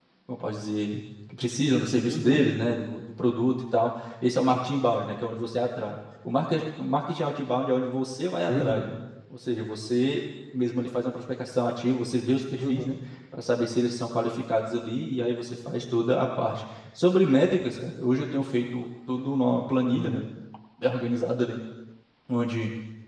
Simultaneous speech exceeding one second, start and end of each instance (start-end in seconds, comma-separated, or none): none